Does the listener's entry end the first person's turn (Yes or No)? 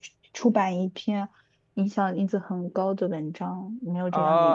Yes